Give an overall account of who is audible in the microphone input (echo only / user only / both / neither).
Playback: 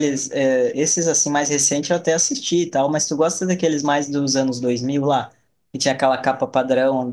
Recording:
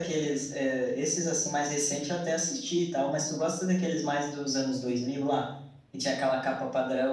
echo only